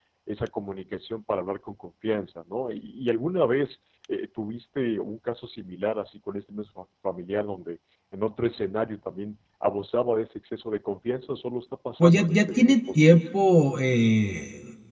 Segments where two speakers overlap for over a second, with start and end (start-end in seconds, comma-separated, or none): 12.0-13.2